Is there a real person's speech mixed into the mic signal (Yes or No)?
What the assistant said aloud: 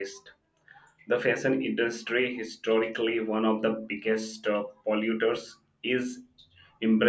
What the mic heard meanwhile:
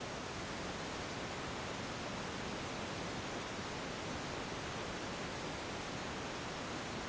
No